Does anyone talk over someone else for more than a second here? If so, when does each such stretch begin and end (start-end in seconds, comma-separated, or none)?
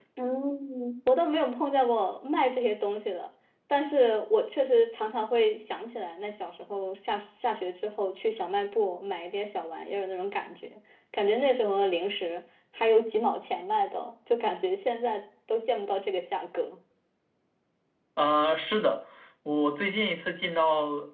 none